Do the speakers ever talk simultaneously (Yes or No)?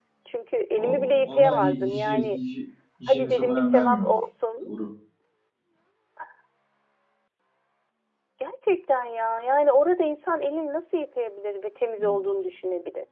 Yes